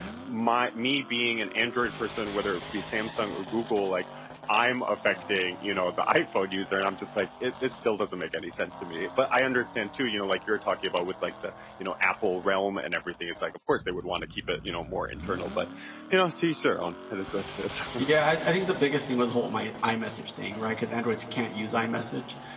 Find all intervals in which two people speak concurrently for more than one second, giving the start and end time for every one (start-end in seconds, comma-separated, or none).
none